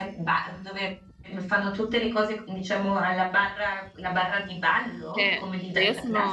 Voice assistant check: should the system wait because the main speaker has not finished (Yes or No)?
No